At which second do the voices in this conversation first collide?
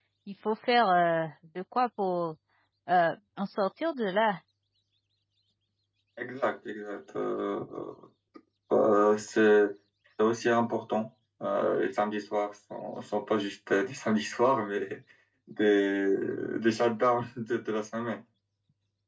none

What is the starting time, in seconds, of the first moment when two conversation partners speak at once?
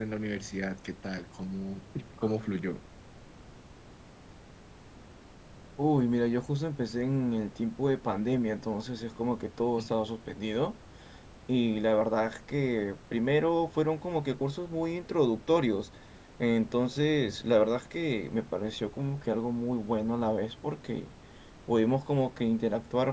none

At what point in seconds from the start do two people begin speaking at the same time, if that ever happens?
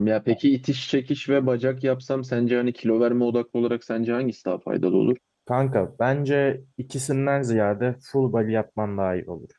none

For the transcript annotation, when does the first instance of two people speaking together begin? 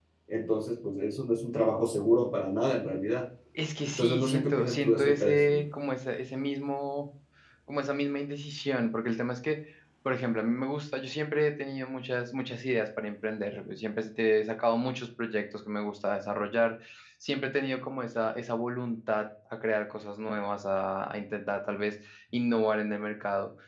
4.0 s

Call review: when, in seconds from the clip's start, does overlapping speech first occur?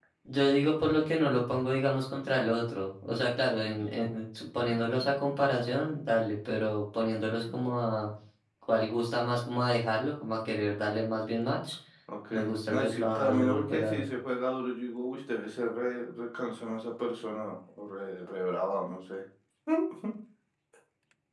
12.3 s

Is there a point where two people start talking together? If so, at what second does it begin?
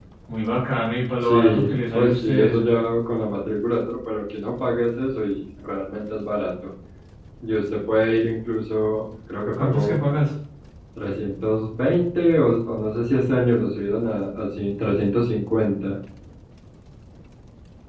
1.2 s

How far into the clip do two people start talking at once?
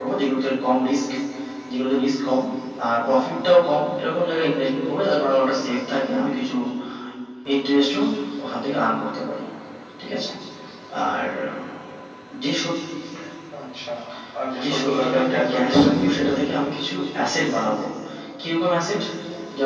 14.6 s

